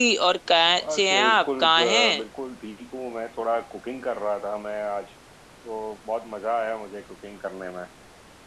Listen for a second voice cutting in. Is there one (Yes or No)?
Yes